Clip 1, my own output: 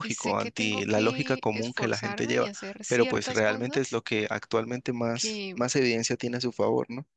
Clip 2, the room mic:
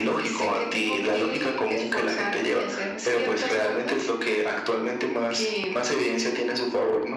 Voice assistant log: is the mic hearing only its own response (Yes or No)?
Yes